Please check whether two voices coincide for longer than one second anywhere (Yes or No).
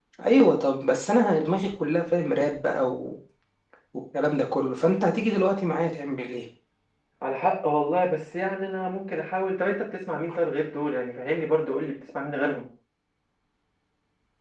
No